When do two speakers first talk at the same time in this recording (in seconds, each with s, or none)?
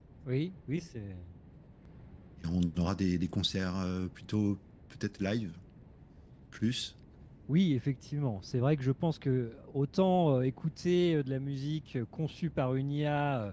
none